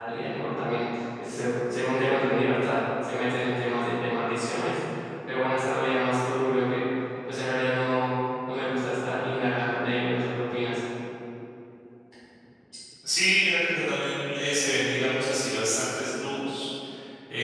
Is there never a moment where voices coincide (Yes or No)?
Yes